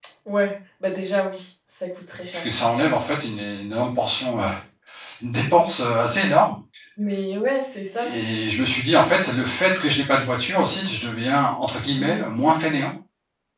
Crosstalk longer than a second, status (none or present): none